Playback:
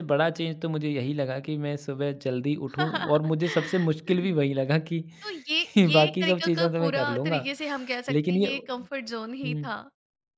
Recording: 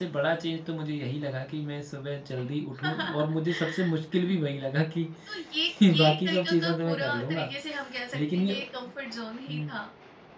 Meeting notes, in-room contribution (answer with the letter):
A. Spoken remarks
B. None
B